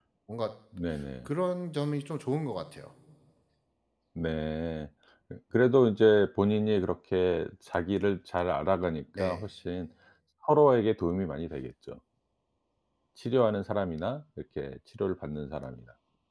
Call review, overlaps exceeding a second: none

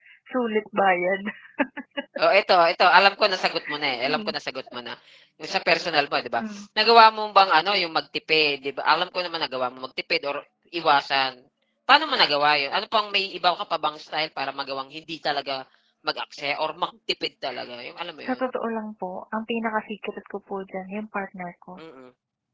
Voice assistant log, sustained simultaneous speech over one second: none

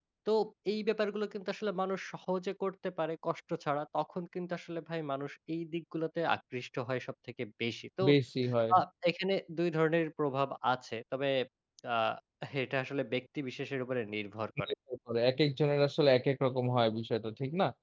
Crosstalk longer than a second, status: none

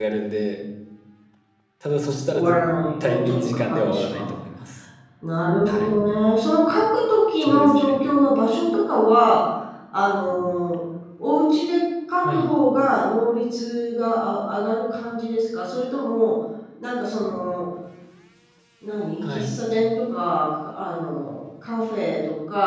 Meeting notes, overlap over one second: present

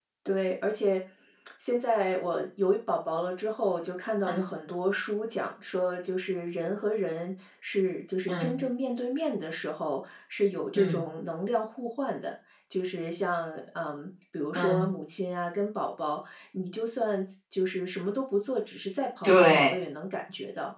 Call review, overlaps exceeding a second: none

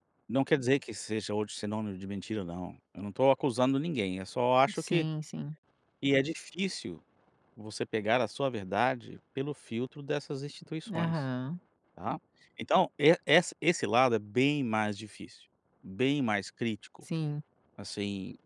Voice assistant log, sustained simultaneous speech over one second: none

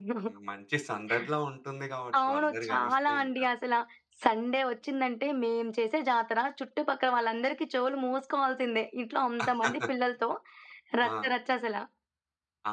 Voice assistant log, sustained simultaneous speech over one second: present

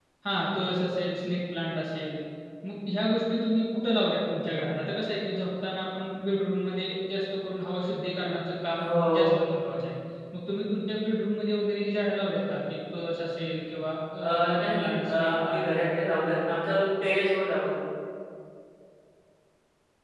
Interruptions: present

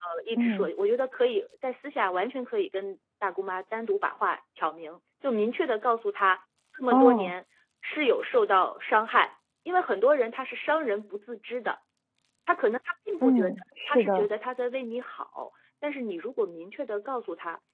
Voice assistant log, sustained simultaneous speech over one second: none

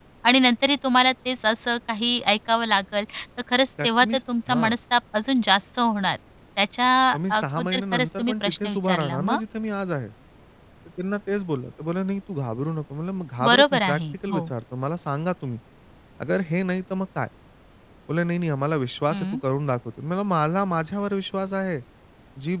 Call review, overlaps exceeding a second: present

